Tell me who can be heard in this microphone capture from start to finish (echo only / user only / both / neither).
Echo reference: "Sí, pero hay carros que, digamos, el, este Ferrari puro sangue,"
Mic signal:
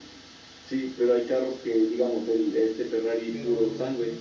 both